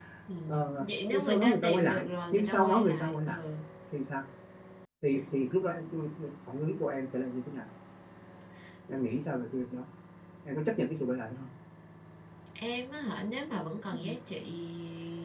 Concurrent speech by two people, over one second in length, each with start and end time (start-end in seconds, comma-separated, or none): 0.8-3.4